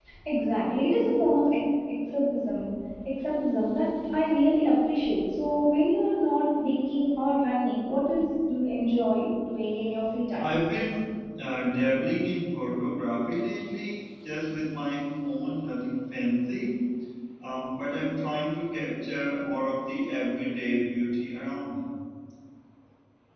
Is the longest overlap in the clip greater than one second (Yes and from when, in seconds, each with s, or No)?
No